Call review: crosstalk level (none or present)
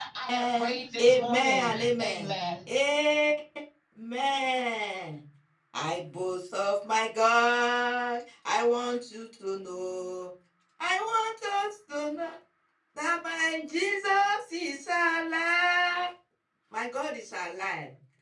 present